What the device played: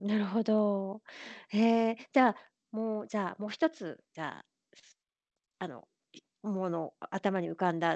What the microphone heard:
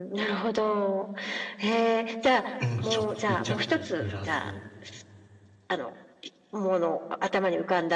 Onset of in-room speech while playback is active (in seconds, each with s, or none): 2.6 s